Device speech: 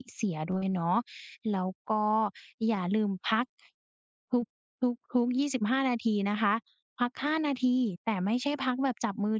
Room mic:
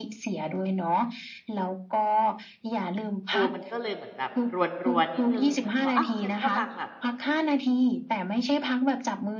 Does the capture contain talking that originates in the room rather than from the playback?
Yes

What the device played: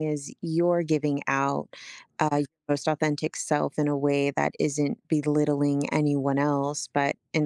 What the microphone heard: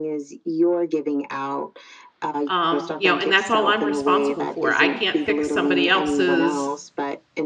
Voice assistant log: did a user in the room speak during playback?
Yes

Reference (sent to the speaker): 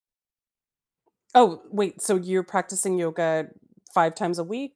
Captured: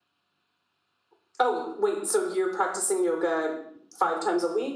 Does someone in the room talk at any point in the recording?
No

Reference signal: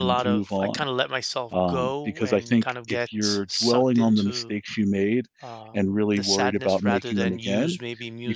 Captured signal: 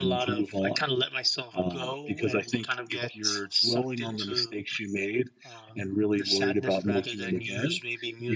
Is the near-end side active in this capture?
No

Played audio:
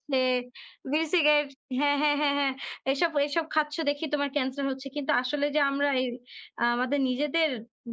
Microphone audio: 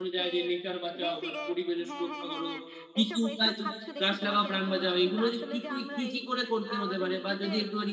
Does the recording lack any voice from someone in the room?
No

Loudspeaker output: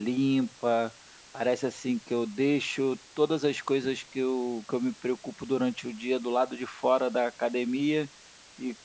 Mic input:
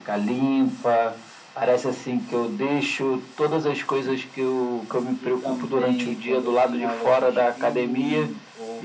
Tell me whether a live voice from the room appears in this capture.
Yes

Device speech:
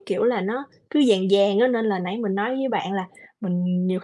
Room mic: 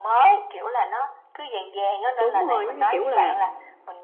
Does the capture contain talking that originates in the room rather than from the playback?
Yes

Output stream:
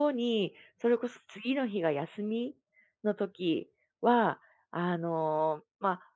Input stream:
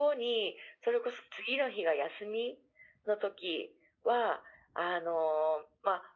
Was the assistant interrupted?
No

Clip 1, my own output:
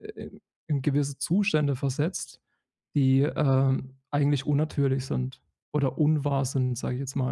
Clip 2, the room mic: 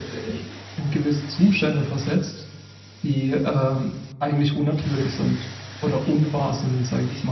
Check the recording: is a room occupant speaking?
No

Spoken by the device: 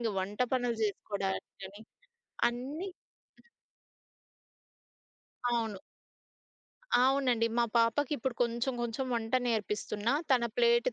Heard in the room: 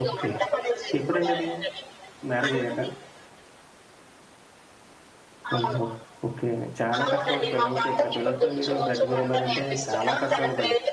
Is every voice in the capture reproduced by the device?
No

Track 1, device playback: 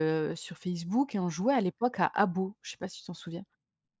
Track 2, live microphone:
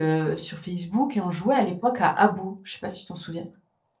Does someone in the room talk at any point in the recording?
No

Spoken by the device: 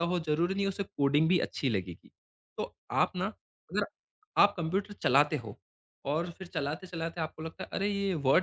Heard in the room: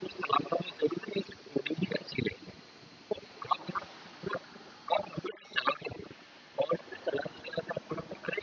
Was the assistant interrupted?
No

